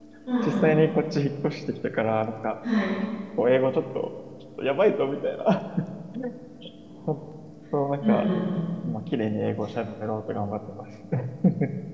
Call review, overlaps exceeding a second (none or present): none